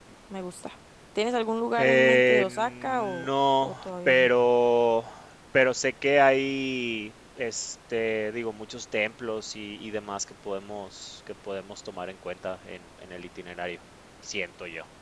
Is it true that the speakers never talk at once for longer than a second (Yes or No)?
No